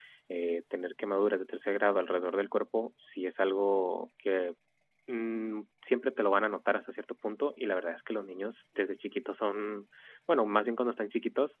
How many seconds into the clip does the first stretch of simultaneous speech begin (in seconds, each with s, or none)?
none